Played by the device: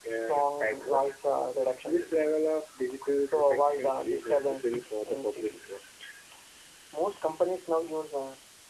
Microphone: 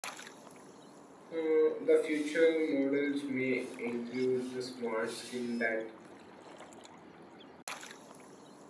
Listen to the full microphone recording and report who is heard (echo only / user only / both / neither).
user only